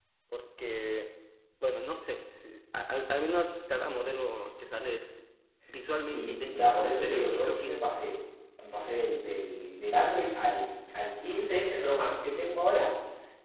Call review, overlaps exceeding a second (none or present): present